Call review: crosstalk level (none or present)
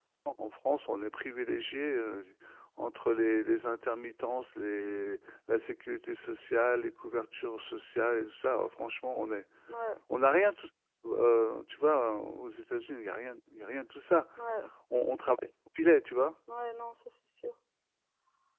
none